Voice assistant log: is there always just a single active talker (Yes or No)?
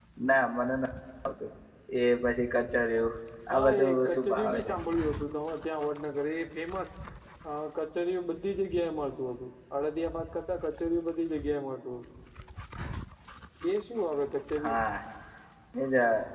No